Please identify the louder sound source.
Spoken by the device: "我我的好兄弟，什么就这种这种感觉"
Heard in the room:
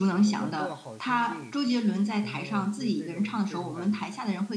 user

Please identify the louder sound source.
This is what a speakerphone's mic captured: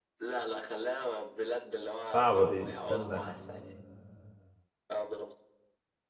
user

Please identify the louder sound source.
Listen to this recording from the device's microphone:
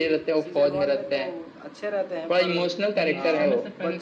echo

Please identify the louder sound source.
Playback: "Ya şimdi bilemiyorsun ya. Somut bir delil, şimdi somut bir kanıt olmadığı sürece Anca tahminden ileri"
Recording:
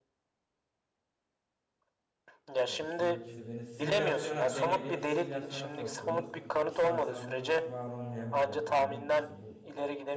echo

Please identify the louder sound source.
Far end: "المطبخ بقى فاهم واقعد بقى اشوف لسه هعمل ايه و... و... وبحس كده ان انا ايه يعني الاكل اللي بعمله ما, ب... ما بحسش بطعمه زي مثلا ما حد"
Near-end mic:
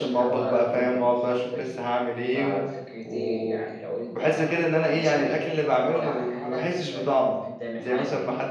echo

